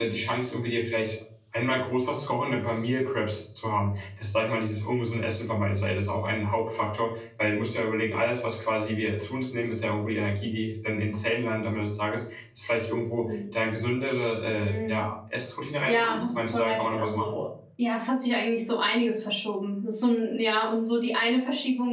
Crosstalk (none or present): present